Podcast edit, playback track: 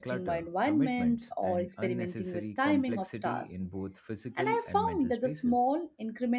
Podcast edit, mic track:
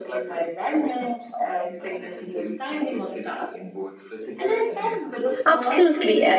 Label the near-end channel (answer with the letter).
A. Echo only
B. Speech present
B